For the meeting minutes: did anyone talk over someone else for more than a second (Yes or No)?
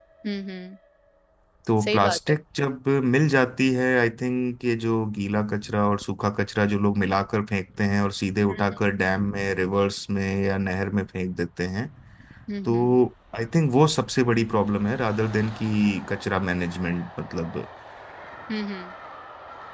No